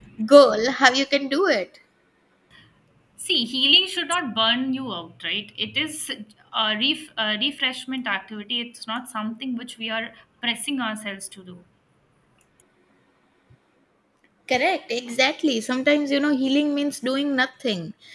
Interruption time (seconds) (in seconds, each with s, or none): none